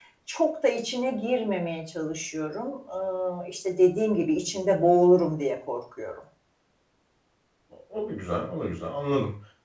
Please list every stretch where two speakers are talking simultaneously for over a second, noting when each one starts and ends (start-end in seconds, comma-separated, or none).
none